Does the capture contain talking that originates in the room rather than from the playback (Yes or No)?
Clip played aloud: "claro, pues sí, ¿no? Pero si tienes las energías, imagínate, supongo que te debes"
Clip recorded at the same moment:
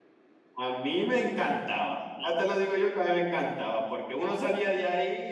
Yes